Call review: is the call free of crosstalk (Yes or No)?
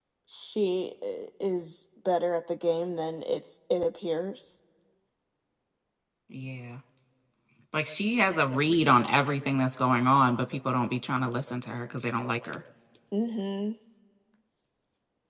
Yes